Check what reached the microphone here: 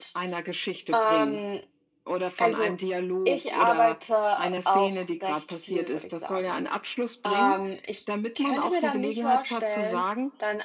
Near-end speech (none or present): present